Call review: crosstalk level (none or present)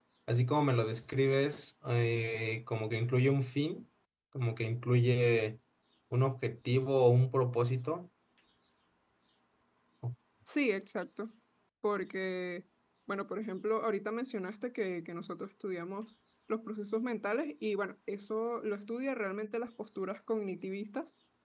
none